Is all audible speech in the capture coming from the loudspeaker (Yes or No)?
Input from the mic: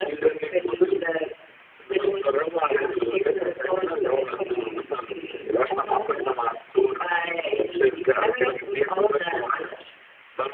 Yes